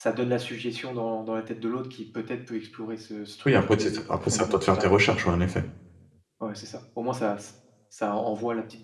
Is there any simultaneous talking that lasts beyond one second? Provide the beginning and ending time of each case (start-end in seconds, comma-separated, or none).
3.5-4.8